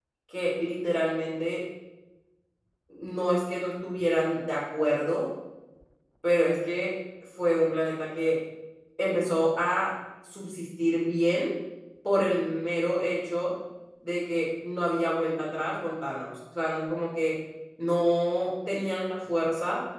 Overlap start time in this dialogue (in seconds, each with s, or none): none